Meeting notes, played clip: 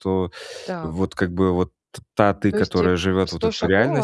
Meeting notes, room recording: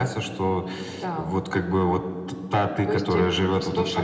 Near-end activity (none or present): none